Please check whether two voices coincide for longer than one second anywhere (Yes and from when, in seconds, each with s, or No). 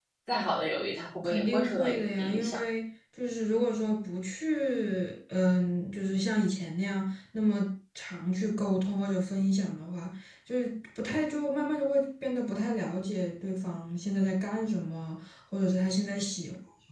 Yes, from 1.2 s